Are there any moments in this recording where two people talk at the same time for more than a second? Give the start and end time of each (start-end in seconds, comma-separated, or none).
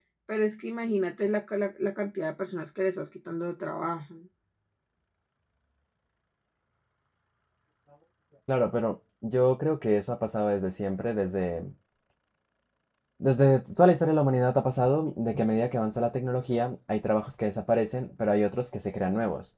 none